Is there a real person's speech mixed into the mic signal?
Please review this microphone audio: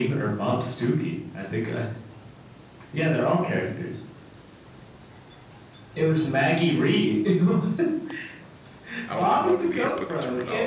Yes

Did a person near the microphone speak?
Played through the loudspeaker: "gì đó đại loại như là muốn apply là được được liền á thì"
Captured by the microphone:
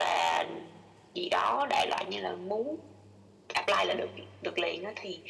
No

